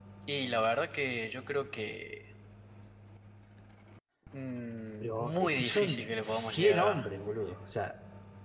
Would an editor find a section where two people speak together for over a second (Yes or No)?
Yes